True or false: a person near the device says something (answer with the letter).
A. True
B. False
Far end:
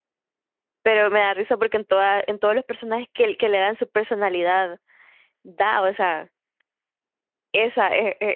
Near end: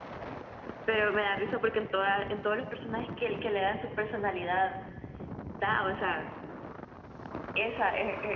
B